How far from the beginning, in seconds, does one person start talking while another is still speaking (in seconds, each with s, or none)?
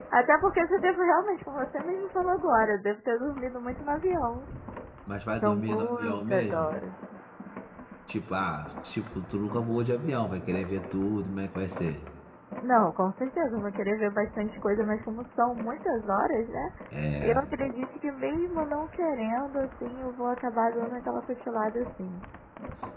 5.4 s